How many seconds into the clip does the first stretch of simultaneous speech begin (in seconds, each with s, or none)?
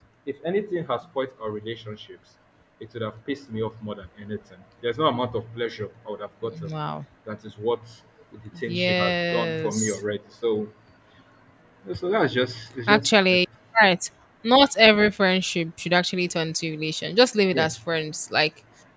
8.7 s